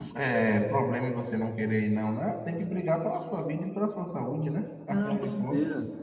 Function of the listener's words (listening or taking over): taking over